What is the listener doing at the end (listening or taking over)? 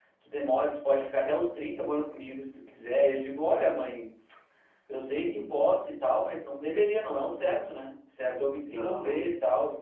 listening